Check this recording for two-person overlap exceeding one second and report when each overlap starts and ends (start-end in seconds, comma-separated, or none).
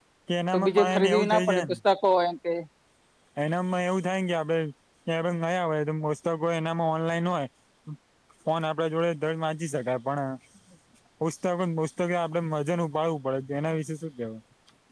0.5-1.8